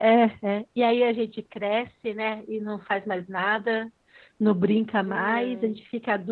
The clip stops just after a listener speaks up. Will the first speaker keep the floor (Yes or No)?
Yes